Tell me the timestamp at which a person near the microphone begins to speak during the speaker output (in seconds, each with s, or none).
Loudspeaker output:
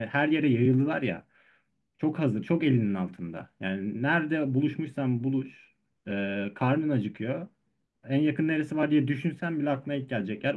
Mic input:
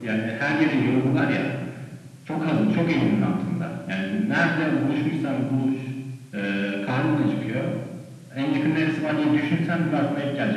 none